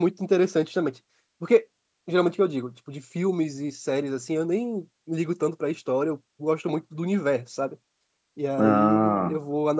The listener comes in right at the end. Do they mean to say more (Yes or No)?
No